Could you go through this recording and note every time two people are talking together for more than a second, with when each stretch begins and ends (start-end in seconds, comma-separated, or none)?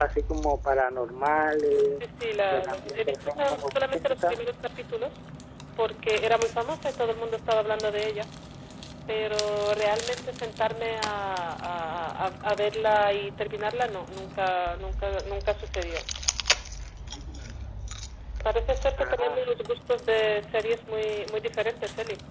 2.5-4.4